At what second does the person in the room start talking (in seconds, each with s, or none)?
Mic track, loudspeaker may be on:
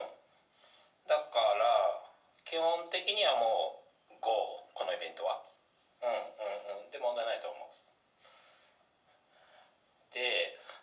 none